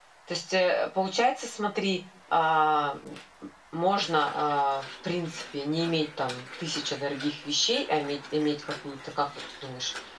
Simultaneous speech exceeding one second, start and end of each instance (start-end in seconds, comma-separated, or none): none